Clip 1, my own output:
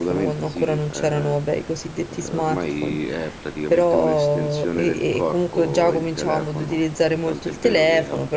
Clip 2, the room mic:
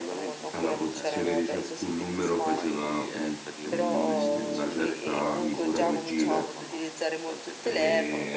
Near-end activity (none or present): present